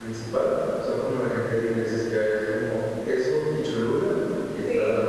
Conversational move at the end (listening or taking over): listening